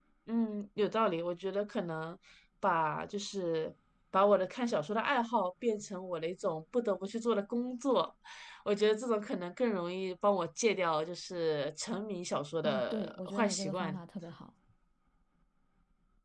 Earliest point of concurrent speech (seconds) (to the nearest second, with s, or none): 13 s